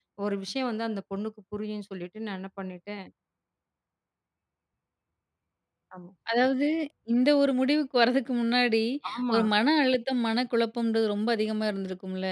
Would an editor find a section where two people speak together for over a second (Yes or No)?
No